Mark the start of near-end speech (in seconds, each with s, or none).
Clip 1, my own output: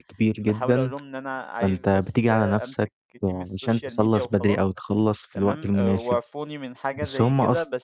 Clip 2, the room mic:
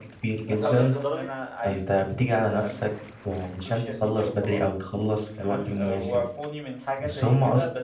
0.5 s